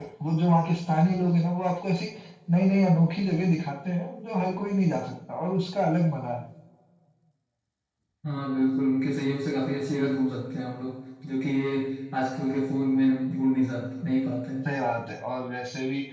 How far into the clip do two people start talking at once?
none

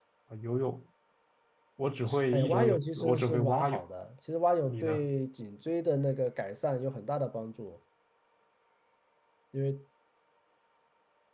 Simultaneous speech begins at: 2.3 s

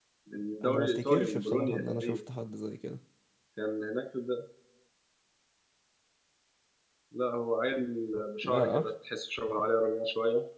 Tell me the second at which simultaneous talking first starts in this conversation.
0.7 s

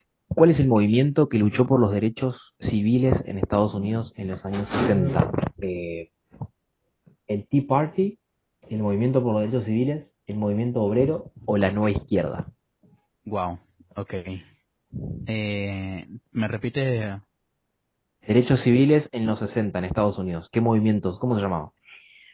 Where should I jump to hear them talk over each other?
none

